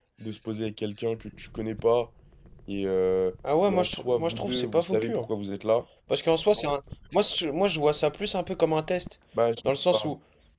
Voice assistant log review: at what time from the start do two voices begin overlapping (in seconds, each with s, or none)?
3.7 s